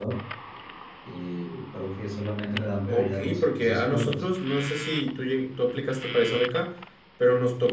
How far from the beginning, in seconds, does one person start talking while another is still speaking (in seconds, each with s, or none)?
2.9 s